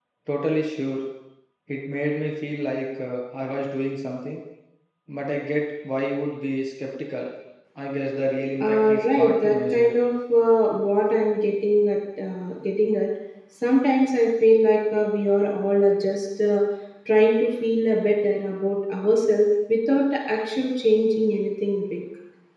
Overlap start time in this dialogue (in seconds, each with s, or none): 8.6 s